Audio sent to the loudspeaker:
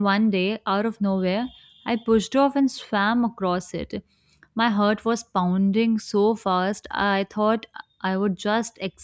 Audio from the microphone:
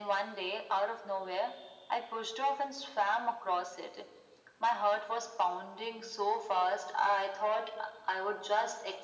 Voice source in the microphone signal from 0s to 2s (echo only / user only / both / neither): echo only